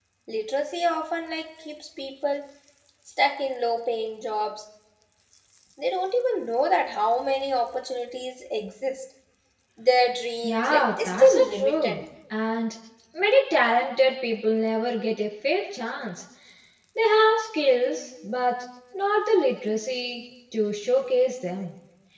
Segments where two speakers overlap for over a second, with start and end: 10.4-12.0

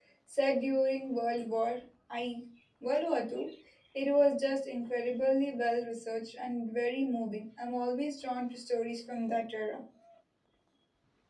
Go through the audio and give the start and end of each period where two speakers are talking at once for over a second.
none

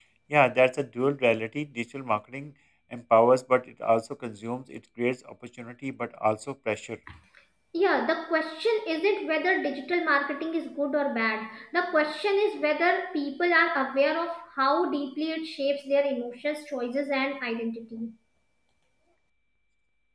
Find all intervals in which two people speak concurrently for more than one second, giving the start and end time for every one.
none

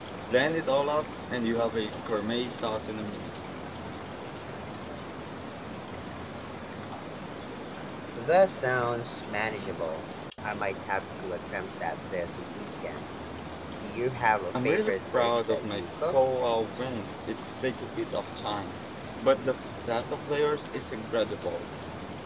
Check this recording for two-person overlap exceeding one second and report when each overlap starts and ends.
14.6-16.2

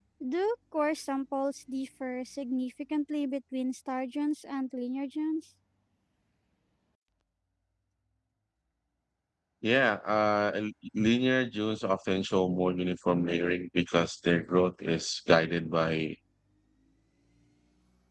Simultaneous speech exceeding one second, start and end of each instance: none

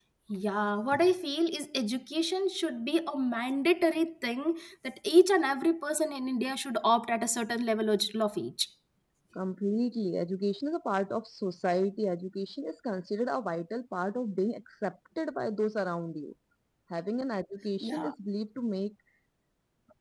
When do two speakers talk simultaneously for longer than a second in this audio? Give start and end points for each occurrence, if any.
none

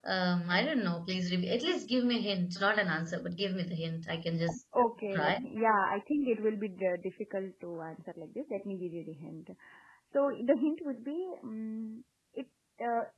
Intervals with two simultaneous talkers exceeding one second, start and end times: none

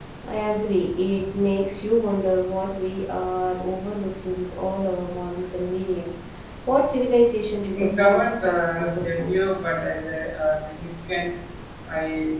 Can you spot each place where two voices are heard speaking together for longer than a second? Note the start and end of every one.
7.8-9.4

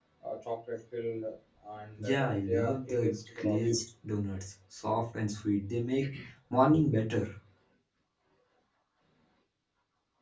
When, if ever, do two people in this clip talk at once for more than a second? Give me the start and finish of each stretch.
2.0-3.6

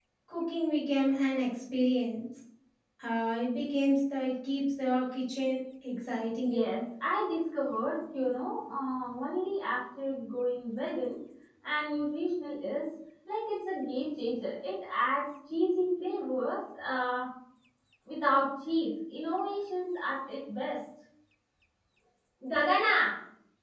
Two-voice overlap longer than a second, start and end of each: none

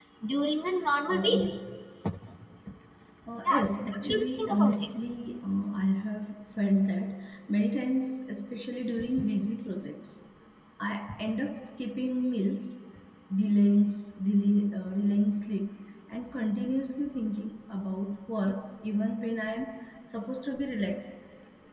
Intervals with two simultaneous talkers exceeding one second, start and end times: 3.5-4.9

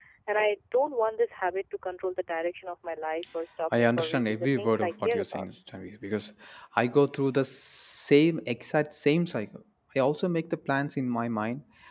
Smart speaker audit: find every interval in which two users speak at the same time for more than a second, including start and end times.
3.8-5.5

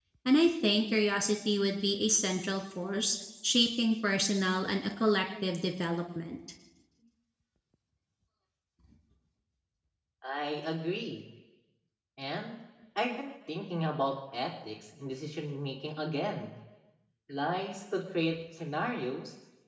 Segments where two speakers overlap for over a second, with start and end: none

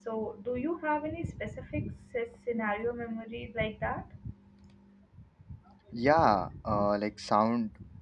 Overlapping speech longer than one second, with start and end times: none

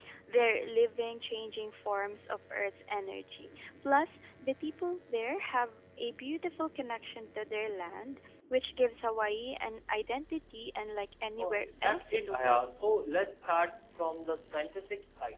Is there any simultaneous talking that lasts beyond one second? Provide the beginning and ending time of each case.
11.4-12.7

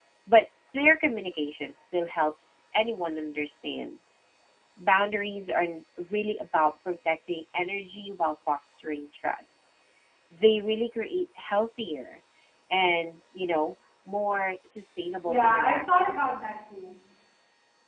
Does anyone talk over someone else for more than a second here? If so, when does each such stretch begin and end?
15.3-16.5

